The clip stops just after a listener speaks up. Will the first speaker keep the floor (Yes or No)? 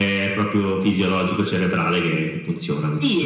No